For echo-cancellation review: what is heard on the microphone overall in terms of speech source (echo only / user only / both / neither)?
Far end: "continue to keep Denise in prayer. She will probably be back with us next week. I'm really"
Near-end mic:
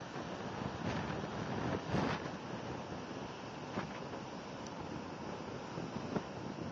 neither